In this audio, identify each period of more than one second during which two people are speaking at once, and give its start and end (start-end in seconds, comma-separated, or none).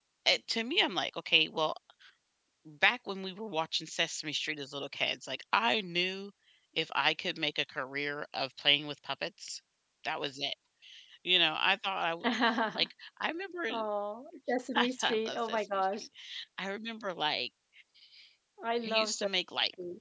14.8-16.0